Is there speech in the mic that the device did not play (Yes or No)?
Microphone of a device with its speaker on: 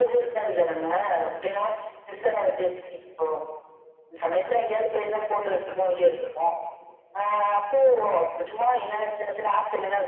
No